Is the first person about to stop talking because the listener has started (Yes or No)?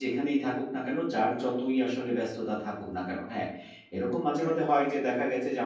No